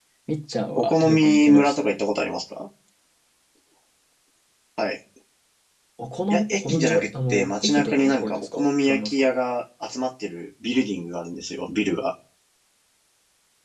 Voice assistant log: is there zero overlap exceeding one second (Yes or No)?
No